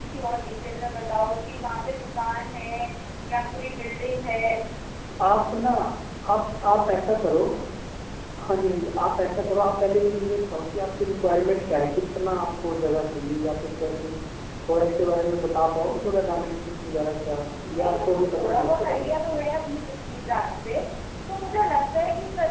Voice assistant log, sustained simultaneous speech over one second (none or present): present